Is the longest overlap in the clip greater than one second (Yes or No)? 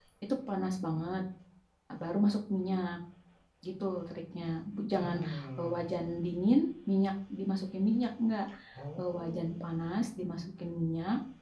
No